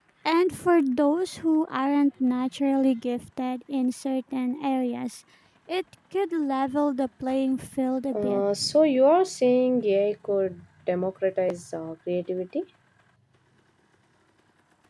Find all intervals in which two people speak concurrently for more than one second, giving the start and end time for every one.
none

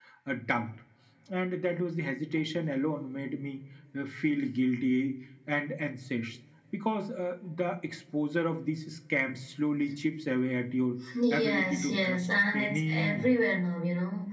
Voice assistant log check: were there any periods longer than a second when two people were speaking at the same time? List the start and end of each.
11.3-13.4

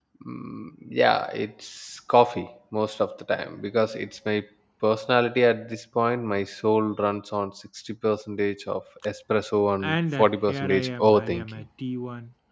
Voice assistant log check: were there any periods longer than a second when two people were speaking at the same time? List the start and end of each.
9.8-11.6

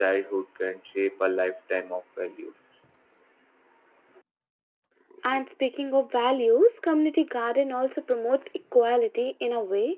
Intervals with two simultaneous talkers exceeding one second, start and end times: none

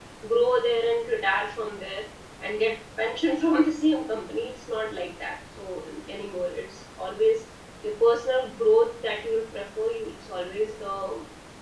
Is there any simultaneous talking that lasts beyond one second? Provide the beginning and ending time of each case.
none

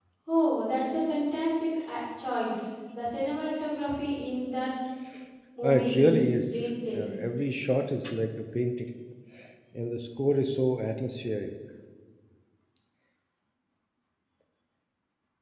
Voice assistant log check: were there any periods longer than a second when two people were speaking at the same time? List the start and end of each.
5.6-7.2

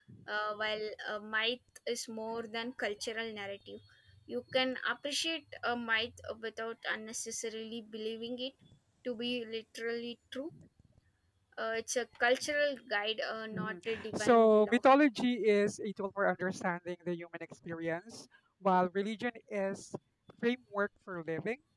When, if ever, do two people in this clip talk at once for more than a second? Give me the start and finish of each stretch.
13.5-14.8

